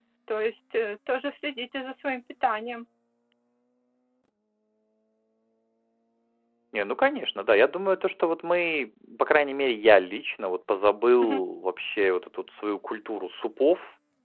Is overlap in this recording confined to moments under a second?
Yes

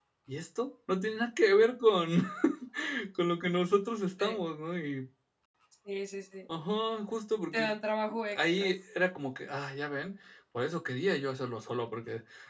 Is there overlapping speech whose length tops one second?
No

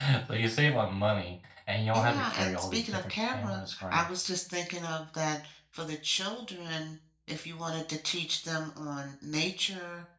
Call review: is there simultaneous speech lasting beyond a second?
Yes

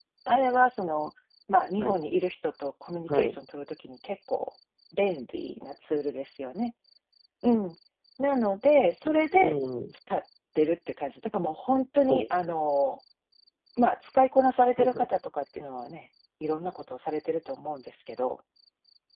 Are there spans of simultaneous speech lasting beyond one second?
No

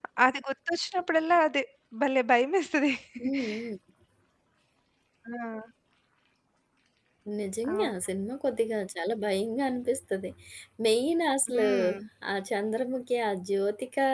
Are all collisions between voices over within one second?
Yes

